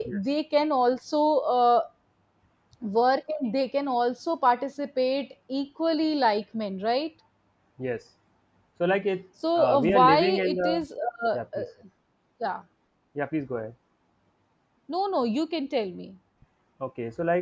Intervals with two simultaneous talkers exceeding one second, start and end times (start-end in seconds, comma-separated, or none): 9.6-10.8